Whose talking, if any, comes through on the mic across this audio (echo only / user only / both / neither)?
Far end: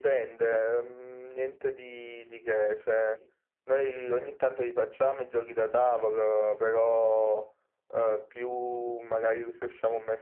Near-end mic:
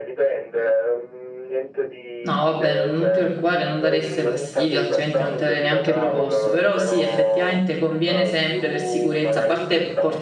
both